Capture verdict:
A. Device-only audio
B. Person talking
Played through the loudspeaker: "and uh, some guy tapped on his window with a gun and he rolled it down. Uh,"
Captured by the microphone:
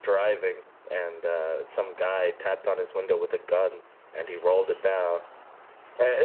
A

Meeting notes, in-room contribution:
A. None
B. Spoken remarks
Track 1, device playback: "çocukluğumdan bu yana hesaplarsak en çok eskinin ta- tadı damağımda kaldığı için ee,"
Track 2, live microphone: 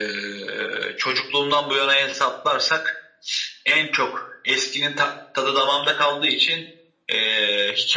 A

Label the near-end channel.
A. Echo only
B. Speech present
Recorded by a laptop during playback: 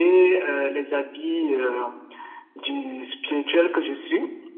A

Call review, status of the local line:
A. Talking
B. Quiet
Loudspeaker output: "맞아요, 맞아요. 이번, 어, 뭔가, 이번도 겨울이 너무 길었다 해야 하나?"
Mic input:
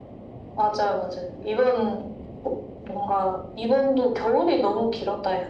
B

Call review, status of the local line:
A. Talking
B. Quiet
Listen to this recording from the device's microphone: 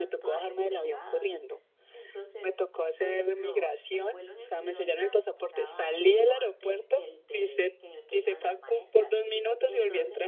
A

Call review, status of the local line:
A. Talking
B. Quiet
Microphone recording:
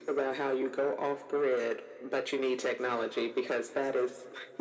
B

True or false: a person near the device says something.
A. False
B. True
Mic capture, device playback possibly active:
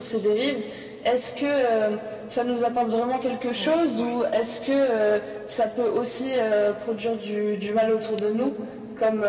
B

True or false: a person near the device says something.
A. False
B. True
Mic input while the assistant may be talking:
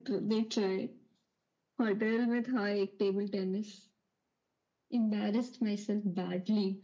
A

